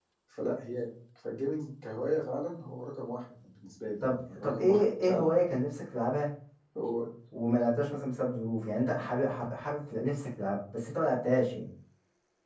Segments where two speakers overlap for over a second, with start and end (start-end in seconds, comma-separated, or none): 4.0-5.3